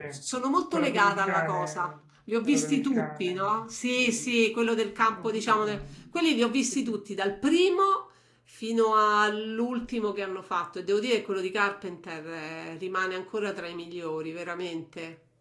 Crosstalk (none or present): present